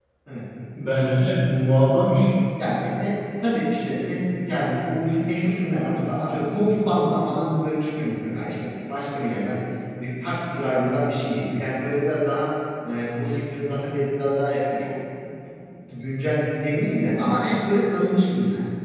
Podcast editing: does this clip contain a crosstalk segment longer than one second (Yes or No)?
No